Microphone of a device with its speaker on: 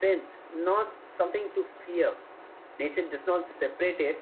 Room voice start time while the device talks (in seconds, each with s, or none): none